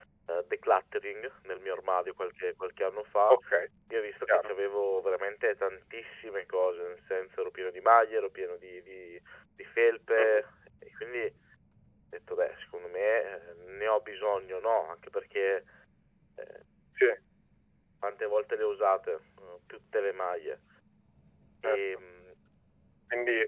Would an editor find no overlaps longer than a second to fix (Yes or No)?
Yes